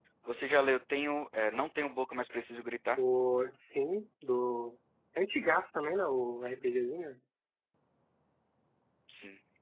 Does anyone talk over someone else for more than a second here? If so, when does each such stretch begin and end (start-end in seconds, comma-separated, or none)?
none